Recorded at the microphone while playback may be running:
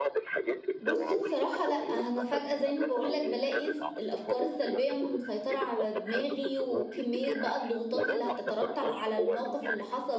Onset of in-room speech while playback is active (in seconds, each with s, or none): 0.8 s